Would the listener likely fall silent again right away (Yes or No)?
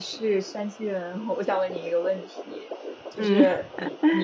Yes